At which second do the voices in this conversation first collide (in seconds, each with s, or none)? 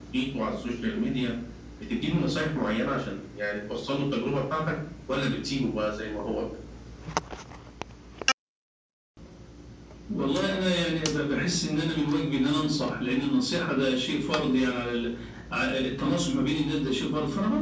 none